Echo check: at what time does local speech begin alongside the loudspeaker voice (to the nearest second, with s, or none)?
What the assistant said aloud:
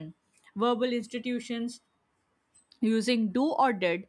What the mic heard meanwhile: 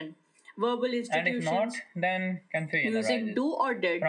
1 s